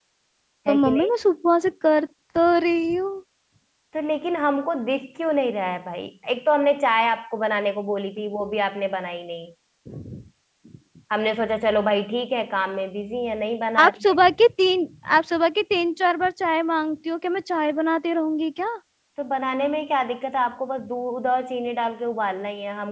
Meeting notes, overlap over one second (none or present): none